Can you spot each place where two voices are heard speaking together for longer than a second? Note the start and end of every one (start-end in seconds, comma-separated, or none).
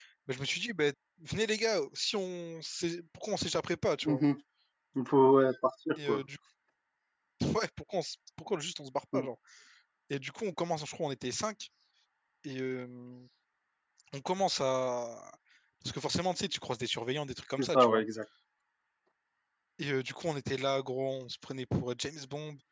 none